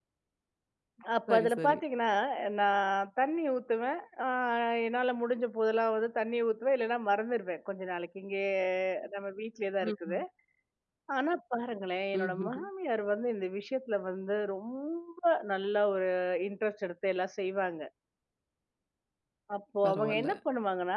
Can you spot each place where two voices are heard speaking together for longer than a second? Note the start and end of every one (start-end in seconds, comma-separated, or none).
none